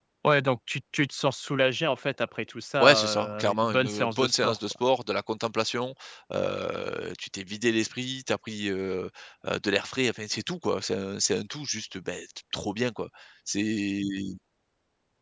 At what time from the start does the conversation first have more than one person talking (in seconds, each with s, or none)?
2.8 s